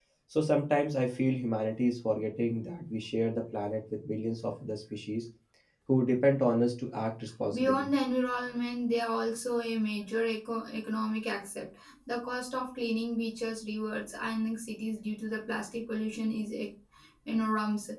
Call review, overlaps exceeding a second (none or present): none